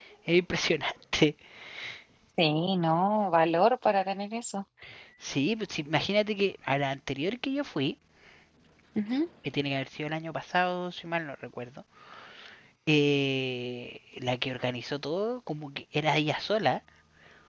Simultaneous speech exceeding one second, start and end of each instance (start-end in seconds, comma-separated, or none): none